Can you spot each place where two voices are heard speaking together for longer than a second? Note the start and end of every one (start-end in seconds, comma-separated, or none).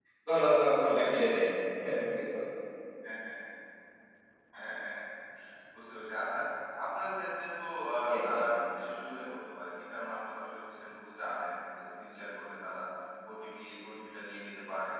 none